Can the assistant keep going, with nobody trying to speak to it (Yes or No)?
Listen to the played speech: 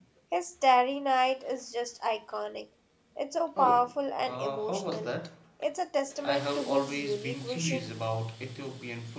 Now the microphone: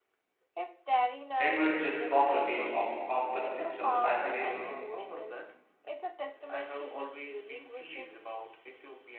No